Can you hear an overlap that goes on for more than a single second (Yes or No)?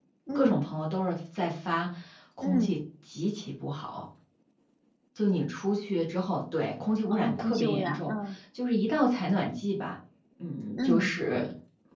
Yes